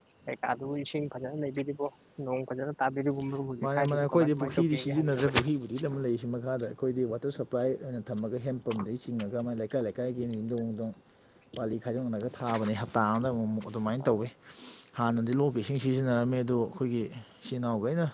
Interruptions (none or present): present